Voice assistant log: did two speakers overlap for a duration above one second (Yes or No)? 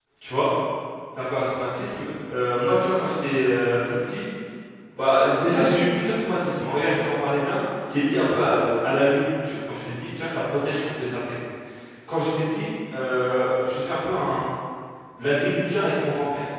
No